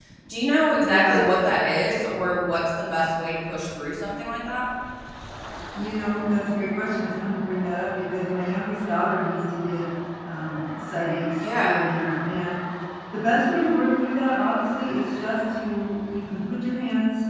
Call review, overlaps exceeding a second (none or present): none